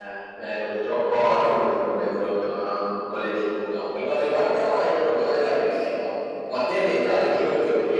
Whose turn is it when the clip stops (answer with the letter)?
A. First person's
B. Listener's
A